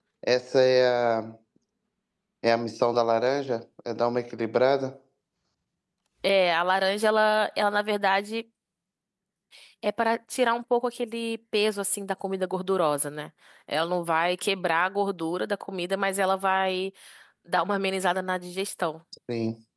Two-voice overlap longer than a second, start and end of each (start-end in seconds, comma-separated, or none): none